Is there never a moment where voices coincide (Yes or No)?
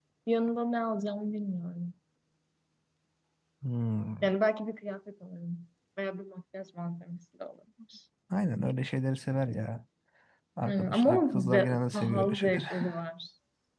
No